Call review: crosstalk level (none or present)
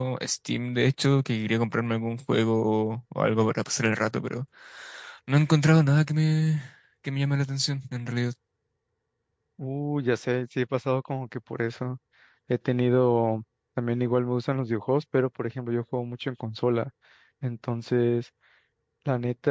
none